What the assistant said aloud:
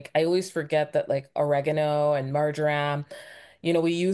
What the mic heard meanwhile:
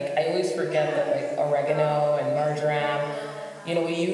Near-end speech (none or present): present